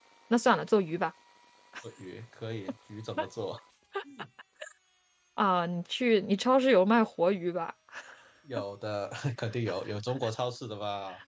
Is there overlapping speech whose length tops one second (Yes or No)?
No